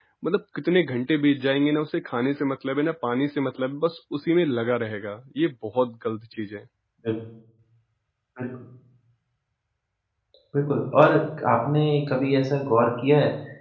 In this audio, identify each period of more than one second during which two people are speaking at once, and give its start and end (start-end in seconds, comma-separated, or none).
none